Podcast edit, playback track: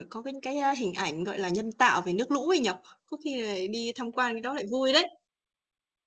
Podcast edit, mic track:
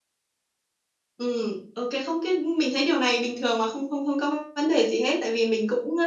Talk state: user only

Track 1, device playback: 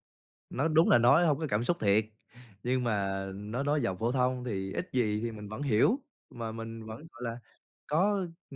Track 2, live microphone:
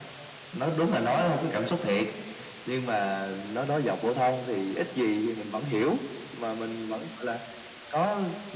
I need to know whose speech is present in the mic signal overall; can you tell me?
echo only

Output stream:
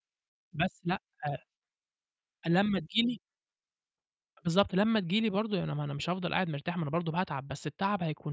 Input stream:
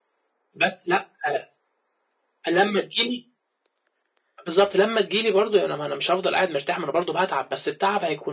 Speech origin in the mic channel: echo only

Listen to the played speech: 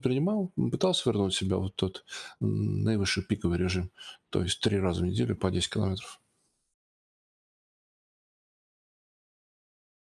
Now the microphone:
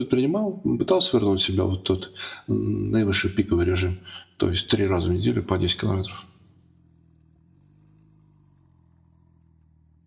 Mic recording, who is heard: echo only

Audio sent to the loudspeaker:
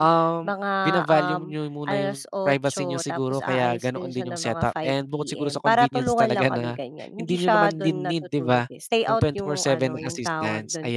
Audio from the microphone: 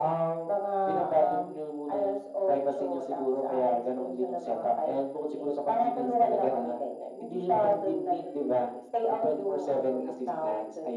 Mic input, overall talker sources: echo only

